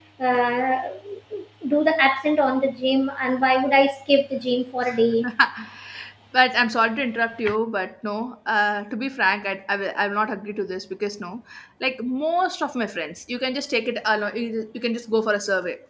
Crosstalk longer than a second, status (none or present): none